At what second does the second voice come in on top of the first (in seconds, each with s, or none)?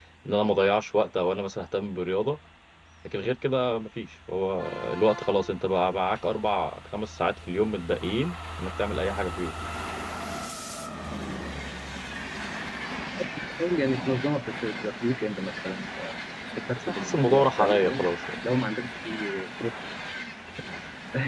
16.9 s